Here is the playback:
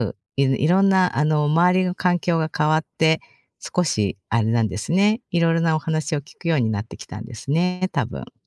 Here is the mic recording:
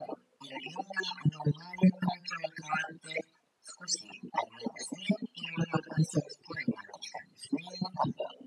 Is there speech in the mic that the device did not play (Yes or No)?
No